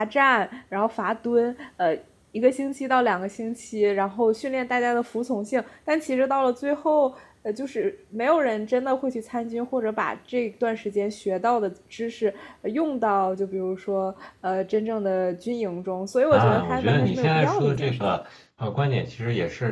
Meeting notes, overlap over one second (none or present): present